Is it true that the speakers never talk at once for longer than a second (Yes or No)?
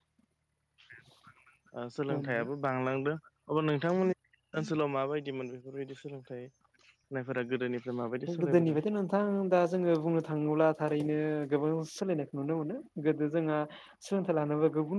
Yes